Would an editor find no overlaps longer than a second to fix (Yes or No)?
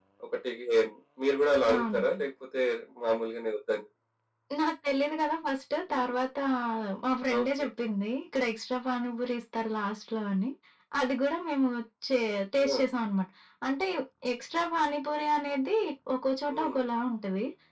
Yes